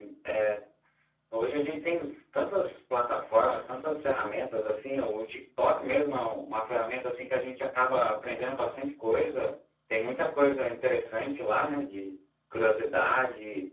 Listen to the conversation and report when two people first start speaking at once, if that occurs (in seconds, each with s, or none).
none